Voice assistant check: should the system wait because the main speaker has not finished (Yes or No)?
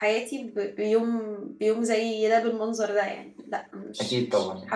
No